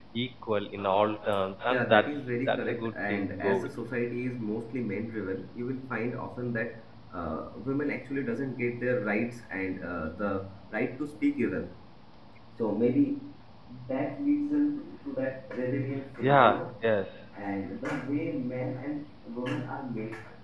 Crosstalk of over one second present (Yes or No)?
Yes